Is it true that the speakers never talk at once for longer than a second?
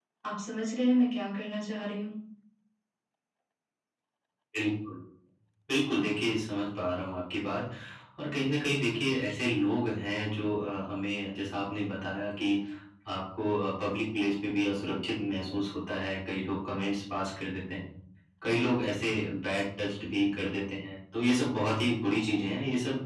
Yes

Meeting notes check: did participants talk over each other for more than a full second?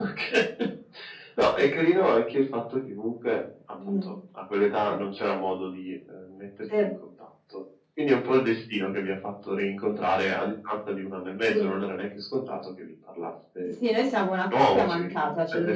Yes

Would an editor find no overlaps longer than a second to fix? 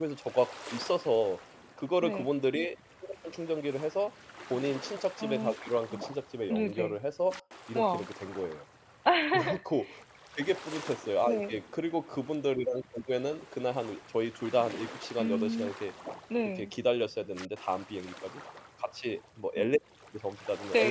Yes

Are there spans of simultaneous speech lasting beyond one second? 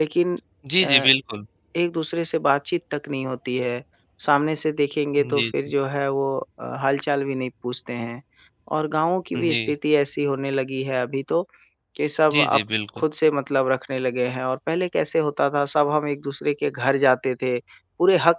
No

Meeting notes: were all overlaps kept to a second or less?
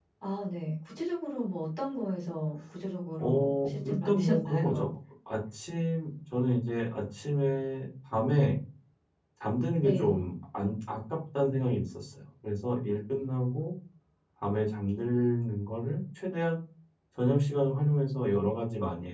No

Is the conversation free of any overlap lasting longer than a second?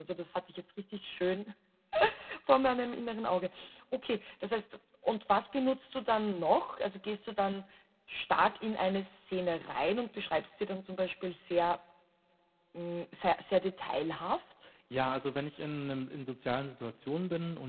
Yes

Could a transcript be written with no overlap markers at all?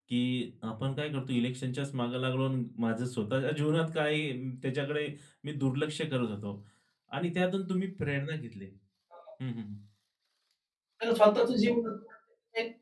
Yes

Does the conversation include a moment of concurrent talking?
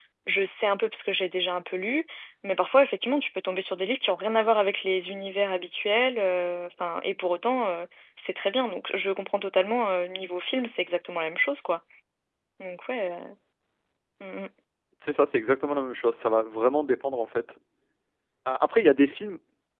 No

